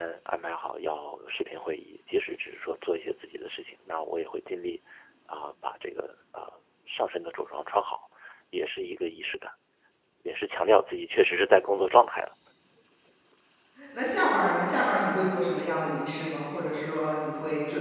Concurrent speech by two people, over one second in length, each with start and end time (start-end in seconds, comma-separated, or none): none